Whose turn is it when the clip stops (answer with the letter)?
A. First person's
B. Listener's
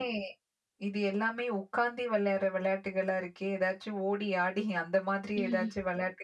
A